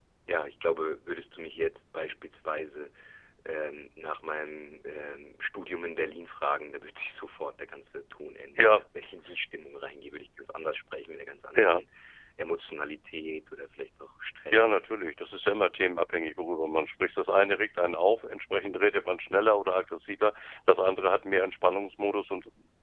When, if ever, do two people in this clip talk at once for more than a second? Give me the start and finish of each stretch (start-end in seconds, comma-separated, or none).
none